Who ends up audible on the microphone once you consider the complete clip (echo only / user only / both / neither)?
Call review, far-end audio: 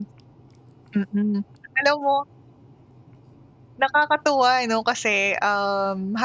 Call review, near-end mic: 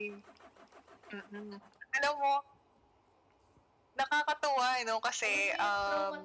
both